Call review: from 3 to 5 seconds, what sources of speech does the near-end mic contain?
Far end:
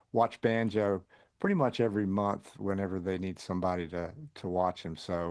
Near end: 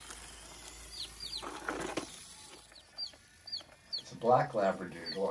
user only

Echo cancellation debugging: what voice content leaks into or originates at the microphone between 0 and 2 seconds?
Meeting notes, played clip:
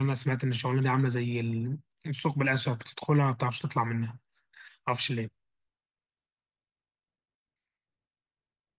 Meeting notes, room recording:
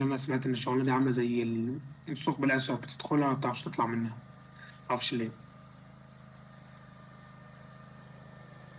echo only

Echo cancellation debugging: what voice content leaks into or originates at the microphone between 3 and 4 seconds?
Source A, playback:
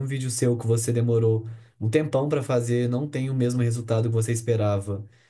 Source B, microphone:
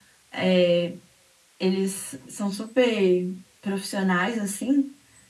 user only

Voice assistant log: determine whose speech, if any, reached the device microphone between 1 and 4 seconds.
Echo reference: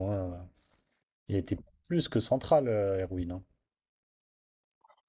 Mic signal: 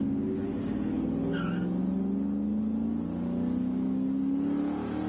neither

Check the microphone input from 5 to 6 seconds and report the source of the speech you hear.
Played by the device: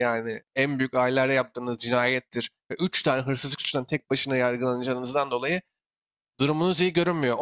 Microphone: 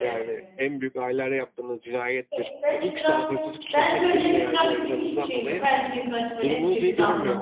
both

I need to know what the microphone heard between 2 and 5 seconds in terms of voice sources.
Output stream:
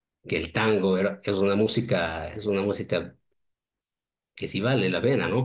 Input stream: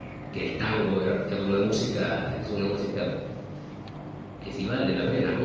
echo only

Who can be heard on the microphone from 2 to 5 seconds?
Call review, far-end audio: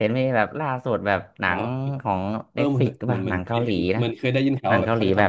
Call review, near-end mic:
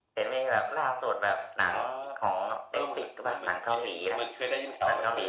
echo only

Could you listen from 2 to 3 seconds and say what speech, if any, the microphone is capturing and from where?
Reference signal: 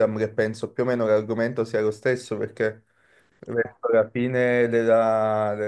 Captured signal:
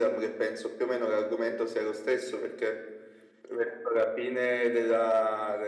echo only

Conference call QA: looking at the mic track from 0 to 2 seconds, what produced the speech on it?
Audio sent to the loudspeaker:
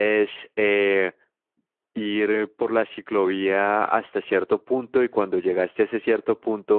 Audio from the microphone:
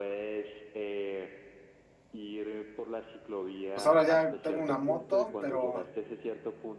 echo only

